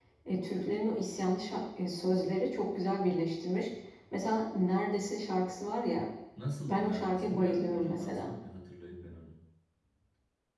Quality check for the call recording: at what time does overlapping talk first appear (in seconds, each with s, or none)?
6.7 s